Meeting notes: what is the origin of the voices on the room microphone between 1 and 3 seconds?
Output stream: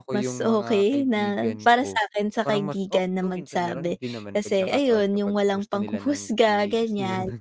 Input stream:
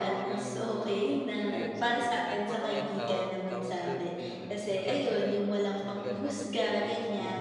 both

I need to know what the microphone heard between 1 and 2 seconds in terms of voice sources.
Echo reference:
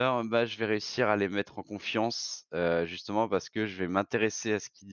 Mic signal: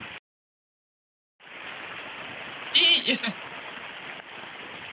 neither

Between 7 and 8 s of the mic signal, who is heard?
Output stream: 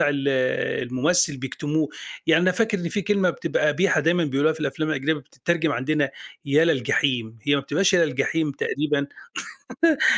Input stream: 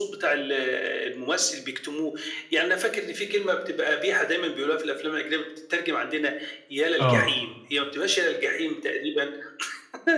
both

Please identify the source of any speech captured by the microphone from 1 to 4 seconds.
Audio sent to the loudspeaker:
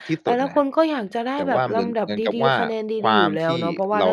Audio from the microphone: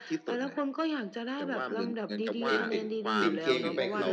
both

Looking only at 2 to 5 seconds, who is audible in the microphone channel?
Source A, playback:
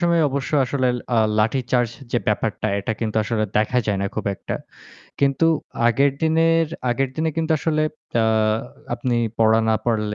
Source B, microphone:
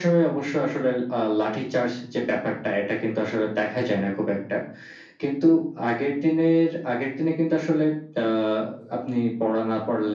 echo only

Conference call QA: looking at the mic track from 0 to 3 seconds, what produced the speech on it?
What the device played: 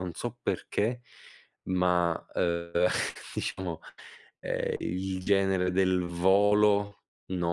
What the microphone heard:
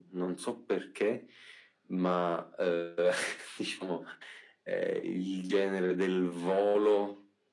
echo only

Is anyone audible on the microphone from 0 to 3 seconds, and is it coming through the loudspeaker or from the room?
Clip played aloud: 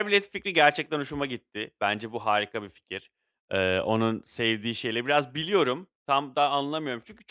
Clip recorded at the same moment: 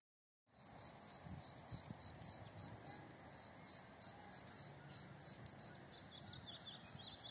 neither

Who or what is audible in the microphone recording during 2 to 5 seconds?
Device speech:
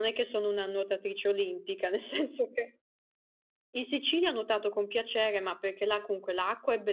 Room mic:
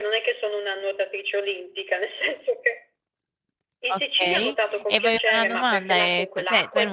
both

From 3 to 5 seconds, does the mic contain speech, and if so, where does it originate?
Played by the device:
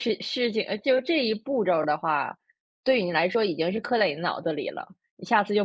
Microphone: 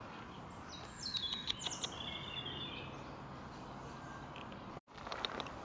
neither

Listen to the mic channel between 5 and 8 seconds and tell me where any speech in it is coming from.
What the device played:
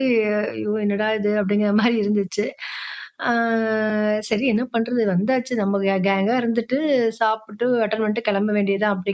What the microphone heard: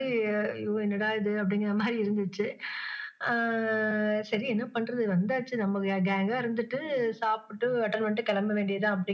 echo only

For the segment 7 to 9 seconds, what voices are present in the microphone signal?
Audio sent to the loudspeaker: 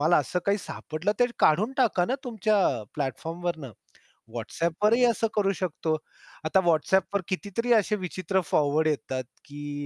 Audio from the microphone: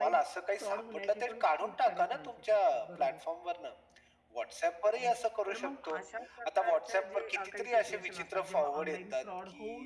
both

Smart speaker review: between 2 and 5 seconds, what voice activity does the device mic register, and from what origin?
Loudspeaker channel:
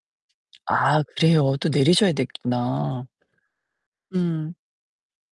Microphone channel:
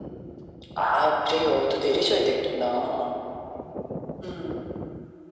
echo only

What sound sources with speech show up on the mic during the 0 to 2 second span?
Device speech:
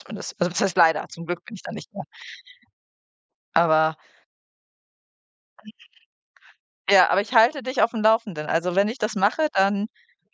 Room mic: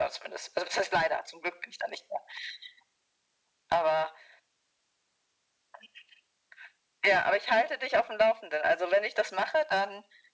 echo only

